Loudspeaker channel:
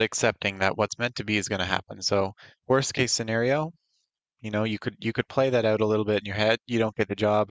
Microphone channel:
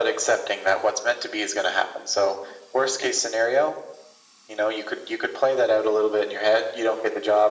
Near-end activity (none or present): none